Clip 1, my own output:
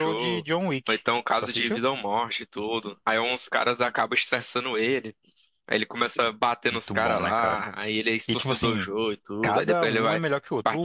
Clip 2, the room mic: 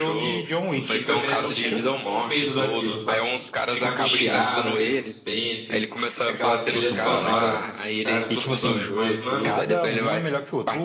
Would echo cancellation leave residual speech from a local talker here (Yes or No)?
Yes